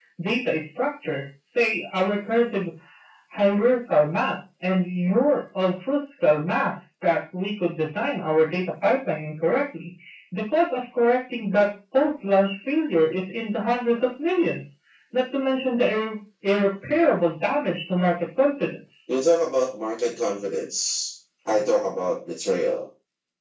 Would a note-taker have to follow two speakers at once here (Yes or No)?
No